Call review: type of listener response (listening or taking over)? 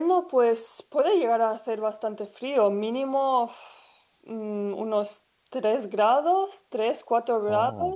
listening